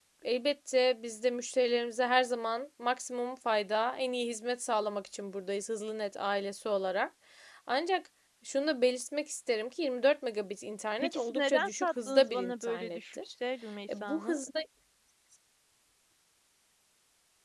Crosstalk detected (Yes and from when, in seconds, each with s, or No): Yes, from 11.0 s